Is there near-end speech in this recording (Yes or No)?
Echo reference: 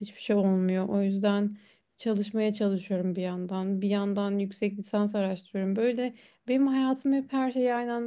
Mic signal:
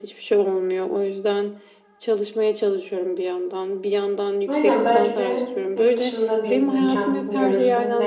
Yes